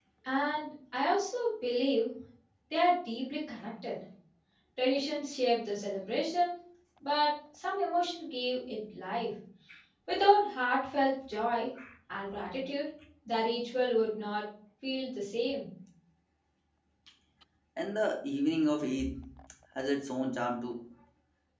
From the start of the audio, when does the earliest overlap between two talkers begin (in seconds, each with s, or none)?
none